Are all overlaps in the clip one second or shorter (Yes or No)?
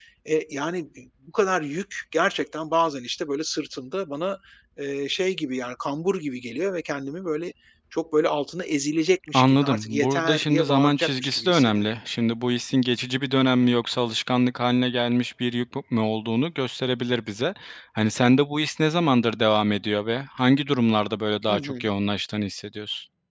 No